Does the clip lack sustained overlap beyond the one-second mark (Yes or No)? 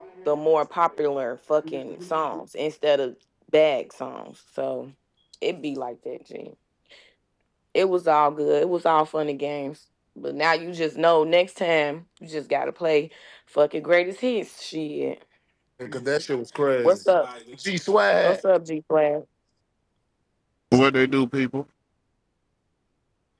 Yes